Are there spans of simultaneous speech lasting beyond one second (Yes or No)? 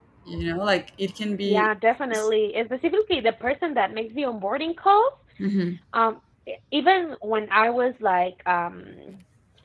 No